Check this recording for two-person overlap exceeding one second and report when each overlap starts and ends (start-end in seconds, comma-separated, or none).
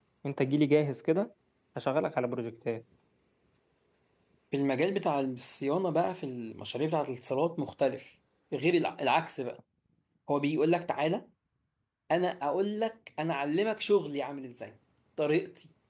none